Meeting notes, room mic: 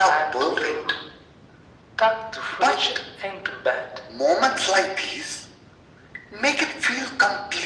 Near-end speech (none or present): none